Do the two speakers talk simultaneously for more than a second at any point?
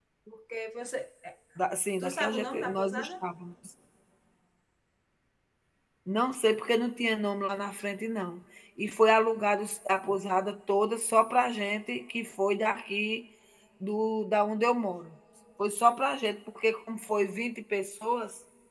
Yes, from 2.0 s

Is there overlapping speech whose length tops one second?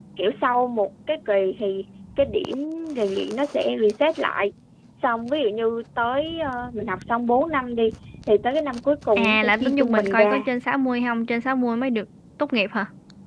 Yes, from 9.2 s

